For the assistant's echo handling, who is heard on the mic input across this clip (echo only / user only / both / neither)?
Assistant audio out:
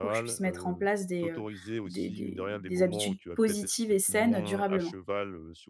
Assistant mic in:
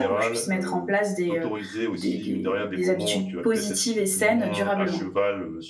echo only